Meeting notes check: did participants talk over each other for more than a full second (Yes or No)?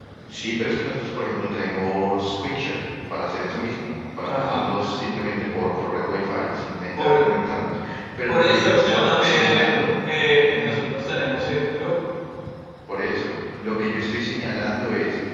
Yes